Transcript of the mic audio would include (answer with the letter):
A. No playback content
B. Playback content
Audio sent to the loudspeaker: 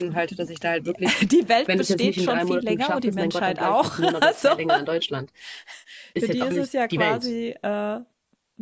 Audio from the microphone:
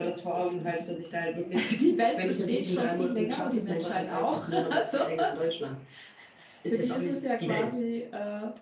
B